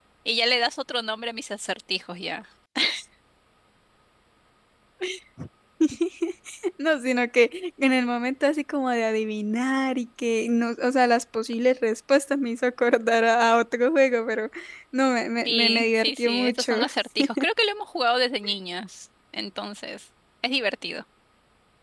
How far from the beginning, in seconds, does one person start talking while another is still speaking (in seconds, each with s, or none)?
15.4 s